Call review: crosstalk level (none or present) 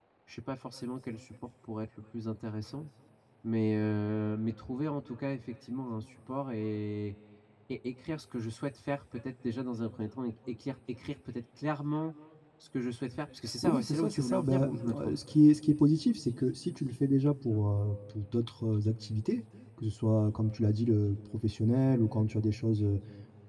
present